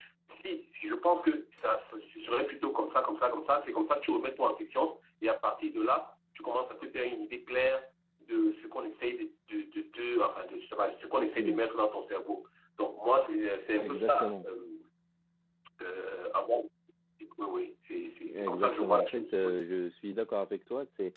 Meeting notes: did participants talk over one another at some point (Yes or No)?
Yes